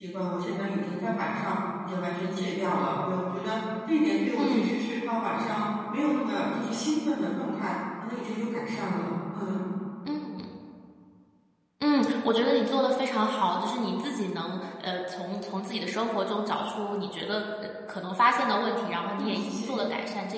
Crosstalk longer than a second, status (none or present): none